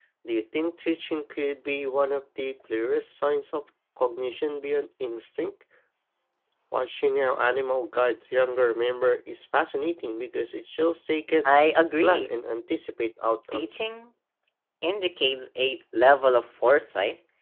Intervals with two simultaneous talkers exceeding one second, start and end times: none

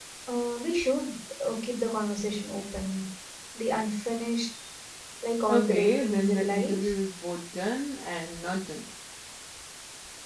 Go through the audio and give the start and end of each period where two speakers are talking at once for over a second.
5.5-6.9

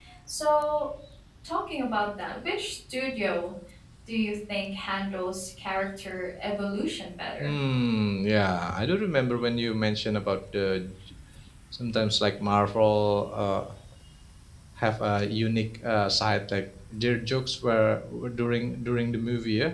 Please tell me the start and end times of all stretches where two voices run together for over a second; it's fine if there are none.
none

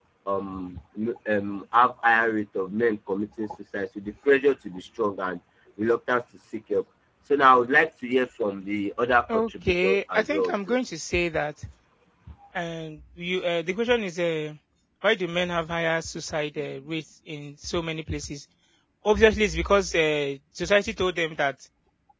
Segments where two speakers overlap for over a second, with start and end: 9.3-10.8

